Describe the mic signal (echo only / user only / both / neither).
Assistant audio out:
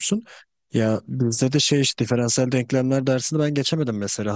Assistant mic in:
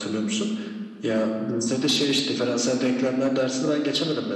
echo only